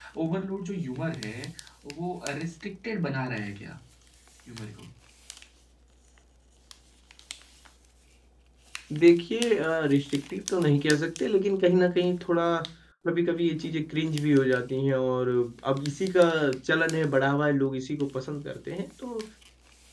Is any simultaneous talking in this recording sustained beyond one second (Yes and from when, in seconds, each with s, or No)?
No